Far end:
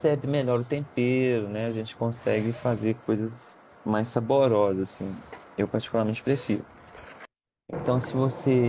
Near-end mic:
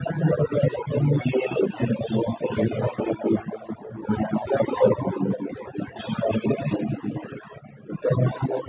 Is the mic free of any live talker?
Yes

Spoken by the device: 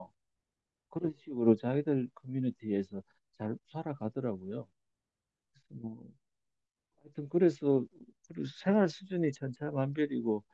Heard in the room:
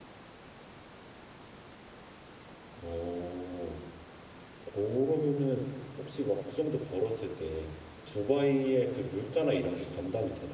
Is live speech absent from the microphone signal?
No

